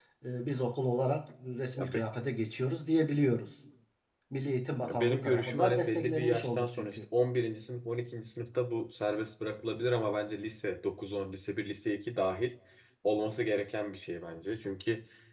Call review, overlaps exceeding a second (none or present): present